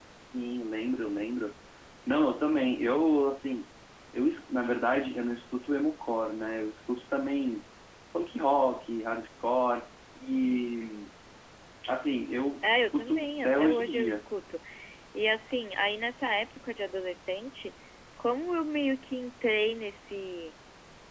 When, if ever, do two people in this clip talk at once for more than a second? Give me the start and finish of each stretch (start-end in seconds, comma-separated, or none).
12.7-14.2